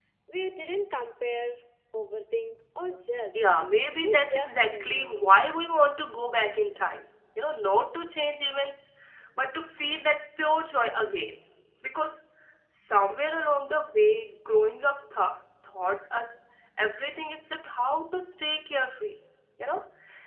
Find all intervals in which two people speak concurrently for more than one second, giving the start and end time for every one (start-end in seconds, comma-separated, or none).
4.0-5.2